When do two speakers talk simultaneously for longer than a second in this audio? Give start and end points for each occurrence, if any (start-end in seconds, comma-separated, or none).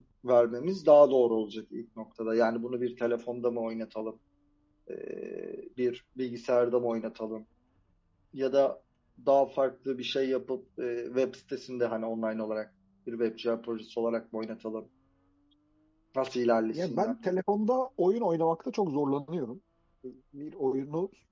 none